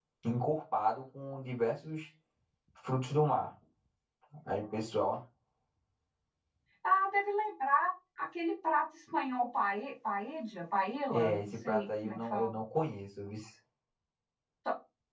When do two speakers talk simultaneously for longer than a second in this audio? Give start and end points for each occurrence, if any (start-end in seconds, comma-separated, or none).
11.1-12.6